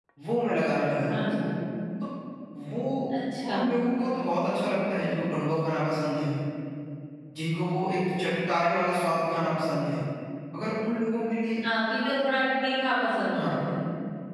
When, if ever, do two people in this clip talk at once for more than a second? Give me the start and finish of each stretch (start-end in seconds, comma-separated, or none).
none